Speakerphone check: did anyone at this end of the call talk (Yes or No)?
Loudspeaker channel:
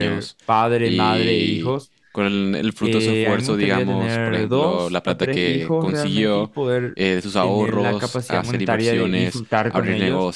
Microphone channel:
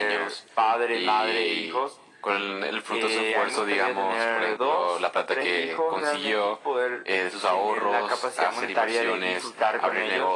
No